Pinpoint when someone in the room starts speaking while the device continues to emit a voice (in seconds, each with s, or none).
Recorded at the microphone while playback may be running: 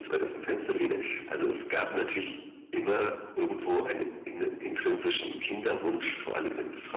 none